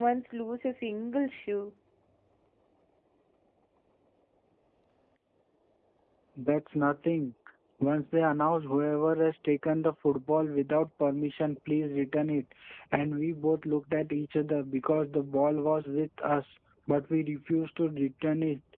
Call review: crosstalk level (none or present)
none